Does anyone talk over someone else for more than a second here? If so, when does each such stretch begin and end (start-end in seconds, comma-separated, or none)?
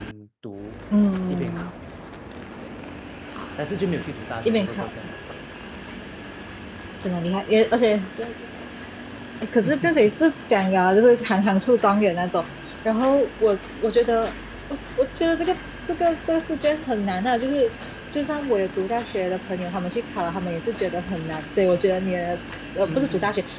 none